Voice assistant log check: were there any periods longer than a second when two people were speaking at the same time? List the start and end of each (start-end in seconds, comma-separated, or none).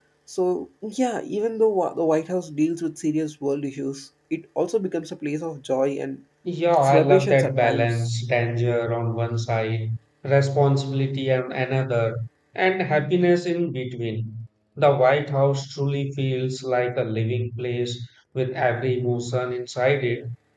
6.8-8.1